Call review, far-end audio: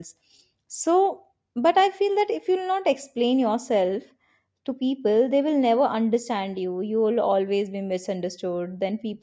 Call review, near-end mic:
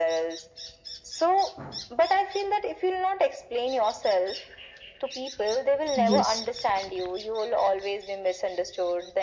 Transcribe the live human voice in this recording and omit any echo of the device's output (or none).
yes